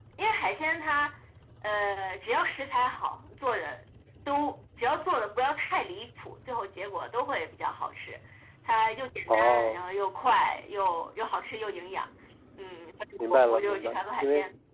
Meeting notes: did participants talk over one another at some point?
Yes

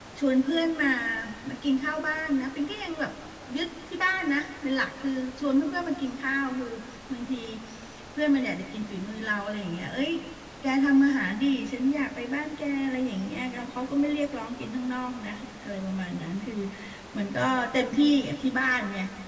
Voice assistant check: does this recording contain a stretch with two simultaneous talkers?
No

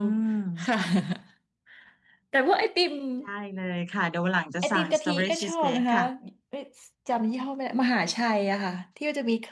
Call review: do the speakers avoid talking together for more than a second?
No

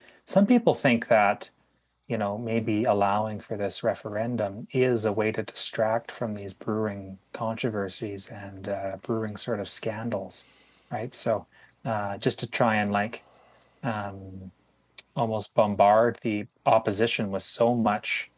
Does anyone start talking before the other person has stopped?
No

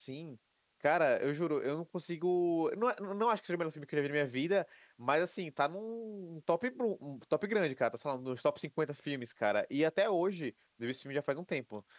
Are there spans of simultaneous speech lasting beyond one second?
No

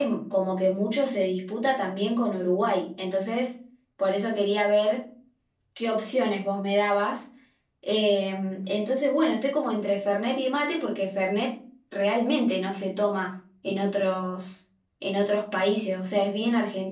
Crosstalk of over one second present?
No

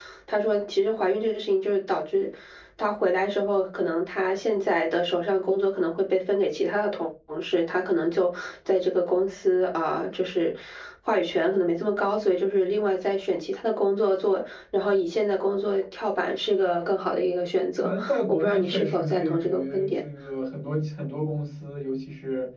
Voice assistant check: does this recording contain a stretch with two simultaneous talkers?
Yes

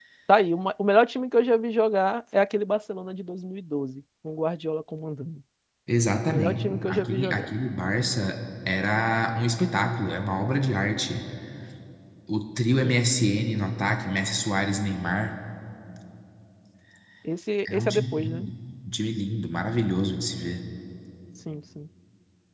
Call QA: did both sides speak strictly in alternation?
No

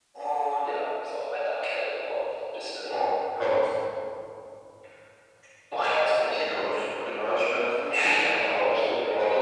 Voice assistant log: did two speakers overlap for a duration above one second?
Yes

